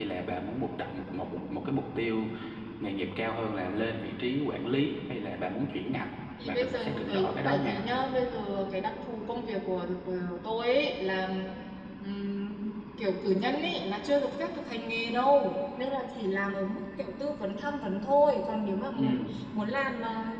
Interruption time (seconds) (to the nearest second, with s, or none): 6 s